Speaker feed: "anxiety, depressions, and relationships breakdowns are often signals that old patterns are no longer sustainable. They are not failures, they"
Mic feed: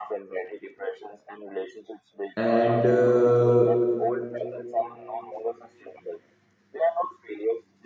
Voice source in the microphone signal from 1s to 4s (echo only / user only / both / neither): both